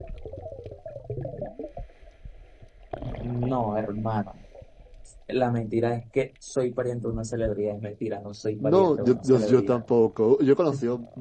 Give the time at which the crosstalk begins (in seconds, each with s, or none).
8.6 s